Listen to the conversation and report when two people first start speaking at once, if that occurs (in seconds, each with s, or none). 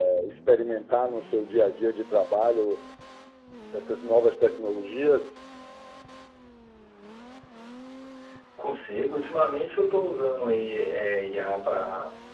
none